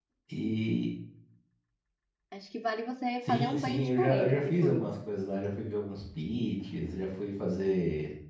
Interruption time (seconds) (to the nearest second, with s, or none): 3 s